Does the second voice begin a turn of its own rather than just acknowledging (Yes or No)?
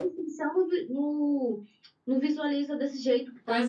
Yes